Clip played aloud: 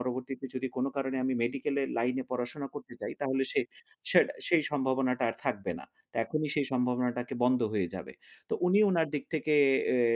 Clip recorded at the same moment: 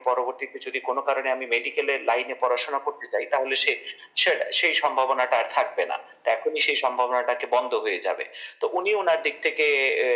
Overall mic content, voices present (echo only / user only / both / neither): echo only